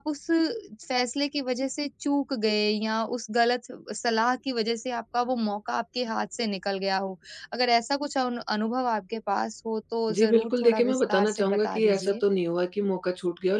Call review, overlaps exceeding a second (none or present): present